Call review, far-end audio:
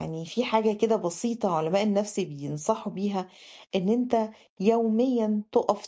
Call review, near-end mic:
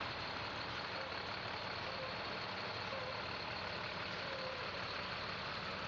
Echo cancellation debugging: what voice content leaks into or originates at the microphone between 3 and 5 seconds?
neither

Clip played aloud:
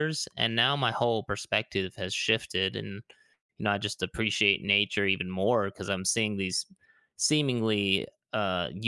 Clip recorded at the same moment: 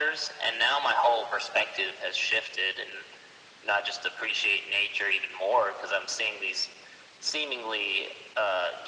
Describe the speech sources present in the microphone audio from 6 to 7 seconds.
echo only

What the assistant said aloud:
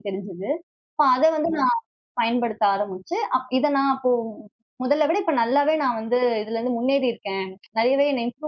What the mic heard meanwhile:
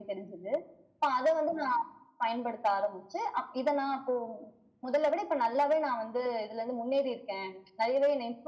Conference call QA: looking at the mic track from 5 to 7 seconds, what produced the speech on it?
echo only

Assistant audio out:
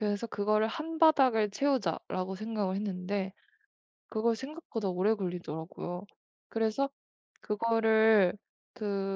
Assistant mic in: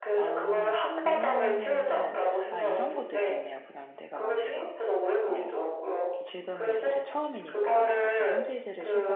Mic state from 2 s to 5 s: both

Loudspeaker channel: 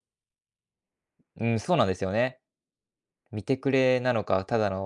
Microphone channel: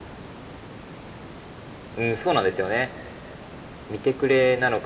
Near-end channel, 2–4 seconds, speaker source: echo only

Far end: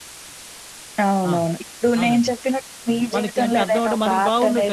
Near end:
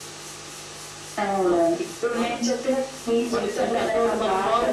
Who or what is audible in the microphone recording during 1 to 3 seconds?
echo only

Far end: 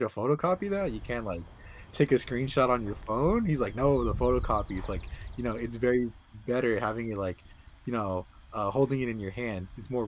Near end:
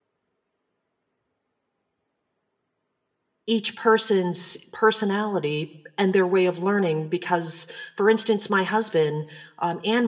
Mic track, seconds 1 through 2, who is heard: neither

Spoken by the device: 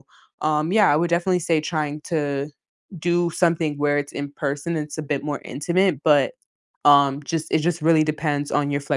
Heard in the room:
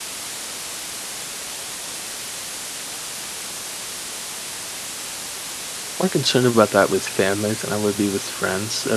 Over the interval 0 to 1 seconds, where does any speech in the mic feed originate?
neither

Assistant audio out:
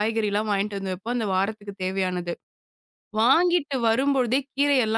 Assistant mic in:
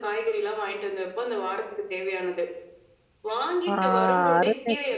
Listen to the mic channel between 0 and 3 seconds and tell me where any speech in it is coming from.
echo only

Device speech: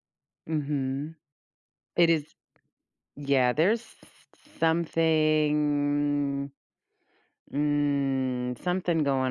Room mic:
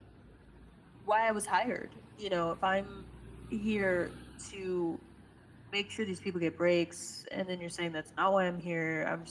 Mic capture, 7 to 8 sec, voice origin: user only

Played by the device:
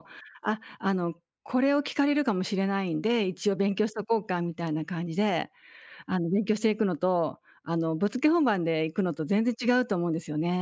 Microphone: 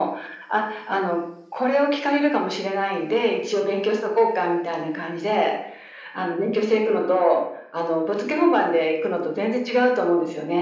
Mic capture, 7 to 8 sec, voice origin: echo only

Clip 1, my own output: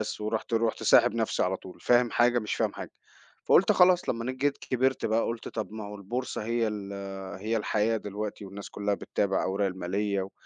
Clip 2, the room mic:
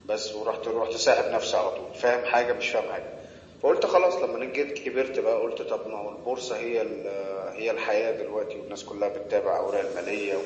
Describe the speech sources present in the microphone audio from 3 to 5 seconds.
echo only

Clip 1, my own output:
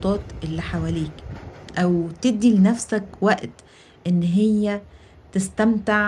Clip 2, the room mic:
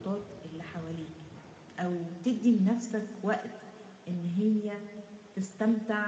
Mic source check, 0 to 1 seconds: echo only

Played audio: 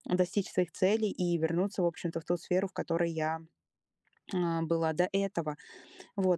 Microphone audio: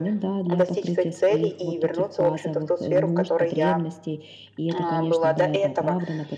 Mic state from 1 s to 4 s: both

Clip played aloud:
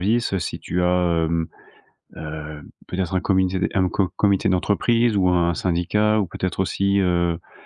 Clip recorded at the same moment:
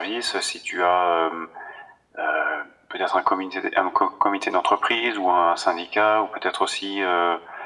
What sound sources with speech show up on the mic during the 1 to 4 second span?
echo only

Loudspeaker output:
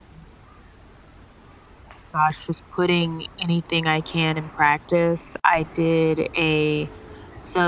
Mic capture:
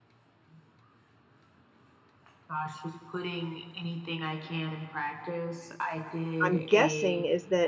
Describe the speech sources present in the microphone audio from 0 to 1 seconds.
neither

